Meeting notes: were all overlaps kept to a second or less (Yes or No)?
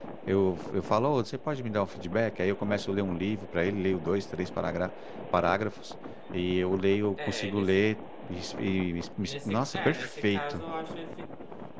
No